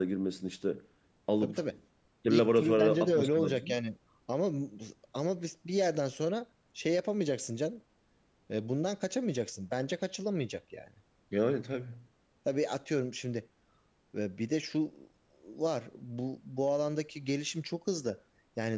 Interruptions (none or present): present